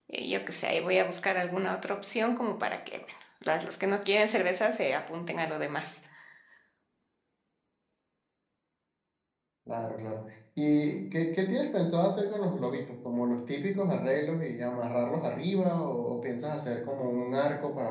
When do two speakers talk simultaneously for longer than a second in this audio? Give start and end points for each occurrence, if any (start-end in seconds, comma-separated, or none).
none